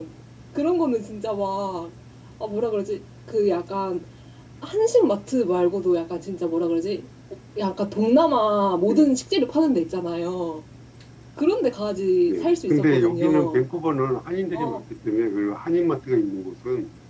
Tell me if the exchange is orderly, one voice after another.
No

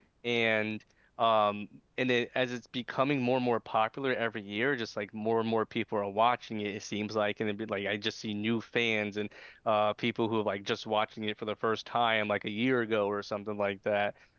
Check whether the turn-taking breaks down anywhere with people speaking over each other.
No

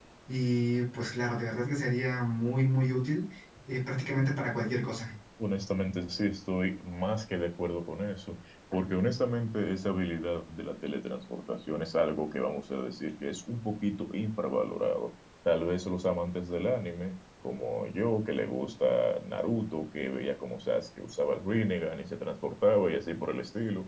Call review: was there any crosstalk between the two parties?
No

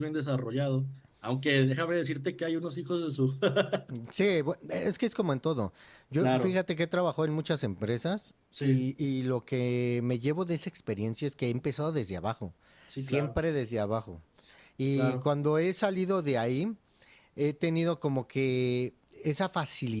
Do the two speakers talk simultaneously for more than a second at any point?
No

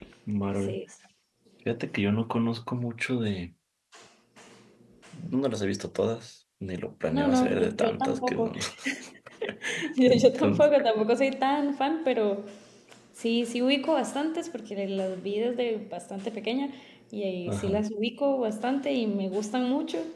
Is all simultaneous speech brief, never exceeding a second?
No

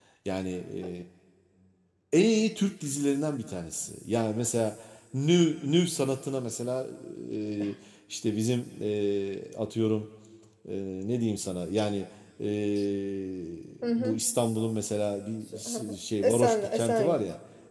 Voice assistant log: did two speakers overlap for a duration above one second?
Yes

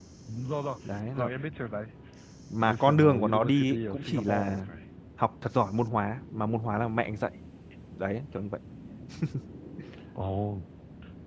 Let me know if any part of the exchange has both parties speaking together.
Yes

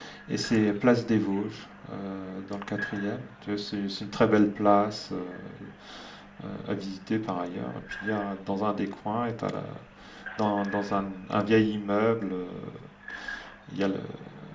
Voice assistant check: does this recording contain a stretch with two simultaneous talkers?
No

